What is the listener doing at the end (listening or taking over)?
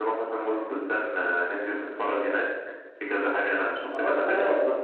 listening